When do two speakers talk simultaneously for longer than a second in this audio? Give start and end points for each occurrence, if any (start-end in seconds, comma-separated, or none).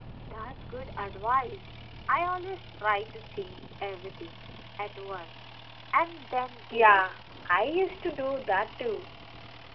none